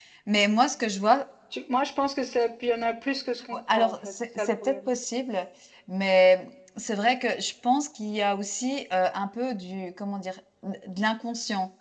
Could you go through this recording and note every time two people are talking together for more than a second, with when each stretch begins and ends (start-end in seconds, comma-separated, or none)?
3.5-4.9